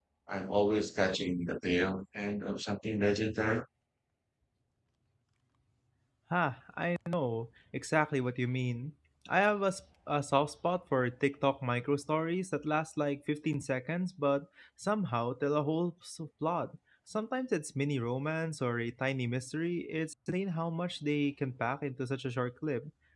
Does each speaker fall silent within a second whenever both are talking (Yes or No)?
Yes